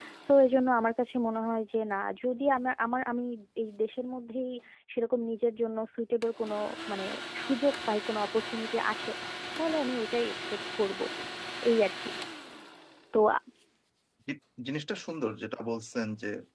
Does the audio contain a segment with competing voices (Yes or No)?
No